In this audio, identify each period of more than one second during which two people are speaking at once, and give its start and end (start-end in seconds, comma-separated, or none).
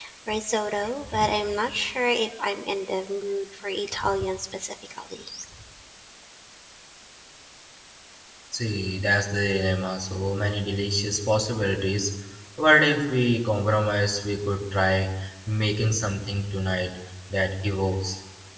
none